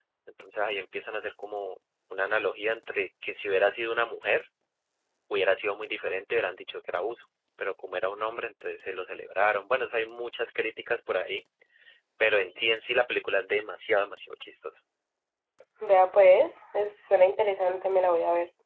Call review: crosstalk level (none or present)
none